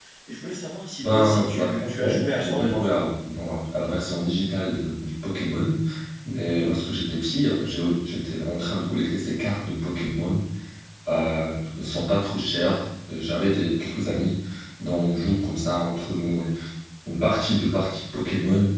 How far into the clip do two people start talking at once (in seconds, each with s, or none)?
1.0 s